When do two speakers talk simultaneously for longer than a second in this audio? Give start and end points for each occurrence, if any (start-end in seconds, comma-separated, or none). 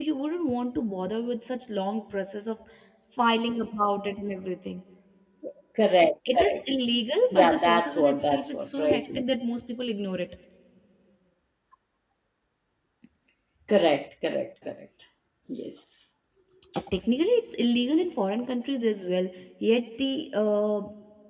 7.3-9.0